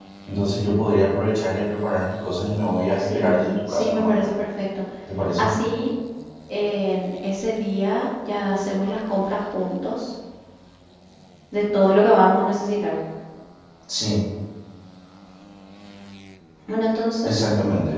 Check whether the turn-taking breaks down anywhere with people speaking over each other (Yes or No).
Yes